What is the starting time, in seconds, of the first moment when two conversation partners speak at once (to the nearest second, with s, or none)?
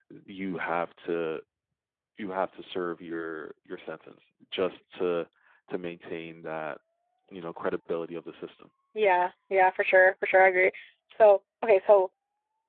none